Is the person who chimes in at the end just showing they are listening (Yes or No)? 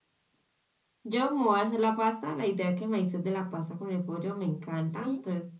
Yes